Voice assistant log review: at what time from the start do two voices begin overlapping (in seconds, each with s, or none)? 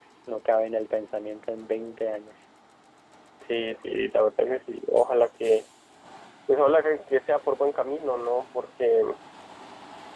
none